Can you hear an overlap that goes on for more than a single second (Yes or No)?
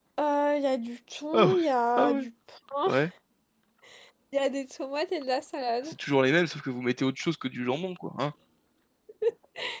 No